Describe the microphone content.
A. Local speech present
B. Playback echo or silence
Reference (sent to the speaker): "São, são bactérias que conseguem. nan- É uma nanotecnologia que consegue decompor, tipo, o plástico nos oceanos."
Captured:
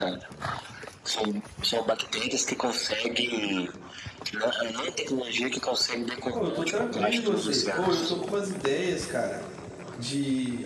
A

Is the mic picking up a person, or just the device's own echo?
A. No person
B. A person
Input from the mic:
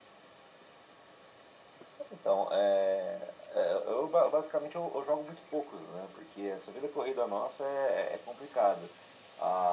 A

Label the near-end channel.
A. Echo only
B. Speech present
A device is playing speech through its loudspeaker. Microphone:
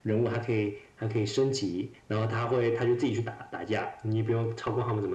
A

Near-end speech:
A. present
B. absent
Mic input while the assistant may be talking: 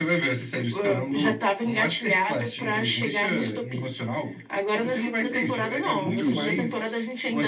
A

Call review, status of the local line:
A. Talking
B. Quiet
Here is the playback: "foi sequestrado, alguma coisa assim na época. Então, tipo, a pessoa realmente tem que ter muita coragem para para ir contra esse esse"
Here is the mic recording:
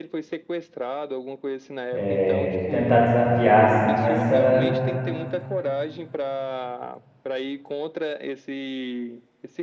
A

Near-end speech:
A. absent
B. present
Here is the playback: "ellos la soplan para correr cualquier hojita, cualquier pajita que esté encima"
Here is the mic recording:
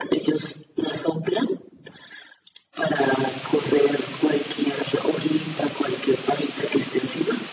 A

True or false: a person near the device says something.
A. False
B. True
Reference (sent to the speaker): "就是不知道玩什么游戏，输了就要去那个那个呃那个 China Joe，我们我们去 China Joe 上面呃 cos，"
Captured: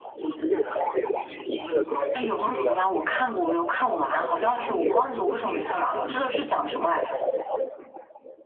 B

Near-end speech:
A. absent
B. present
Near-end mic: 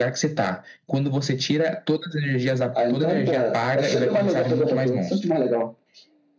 A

